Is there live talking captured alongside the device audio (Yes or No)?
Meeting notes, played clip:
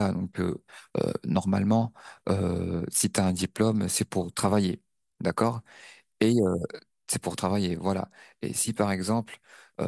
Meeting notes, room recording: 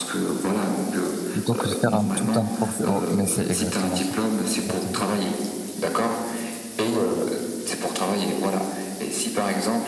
Yes